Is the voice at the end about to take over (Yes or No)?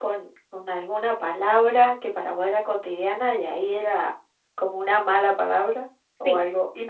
Yes